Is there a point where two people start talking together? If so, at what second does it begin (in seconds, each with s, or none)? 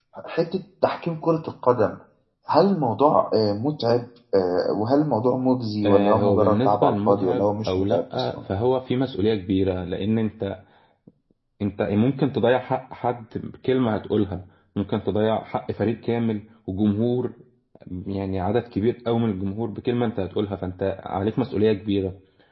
5.8 s